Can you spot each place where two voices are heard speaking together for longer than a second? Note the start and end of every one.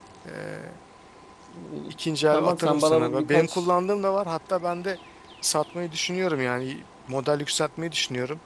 2.3-3.7

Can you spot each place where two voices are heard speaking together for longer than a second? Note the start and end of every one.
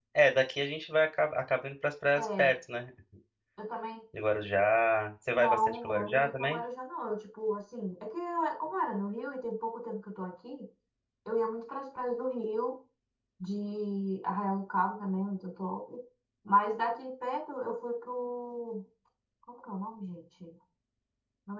5.3-6.6

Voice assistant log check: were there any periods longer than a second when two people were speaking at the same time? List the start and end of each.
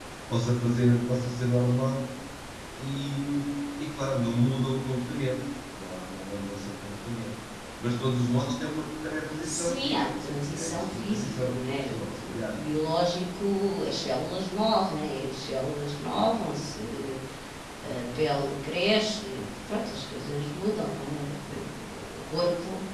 9.4-12.6

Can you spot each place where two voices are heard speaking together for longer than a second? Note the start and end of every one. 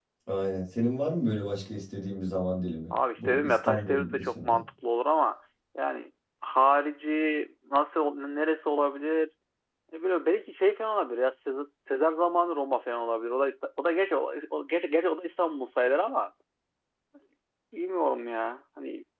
3.2-4.6

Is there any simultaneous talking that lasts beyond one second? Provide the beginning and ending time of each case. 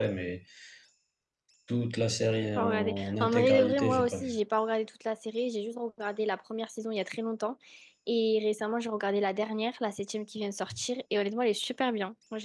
2.6-4.3

